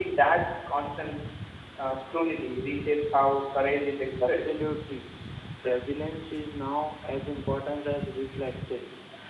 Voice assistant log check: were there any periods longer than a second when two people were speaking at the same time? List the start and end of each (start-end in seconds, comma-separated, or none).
none